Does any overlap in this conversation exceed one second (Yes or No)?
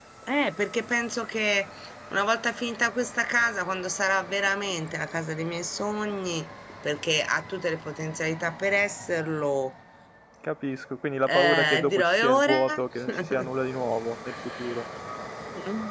Yes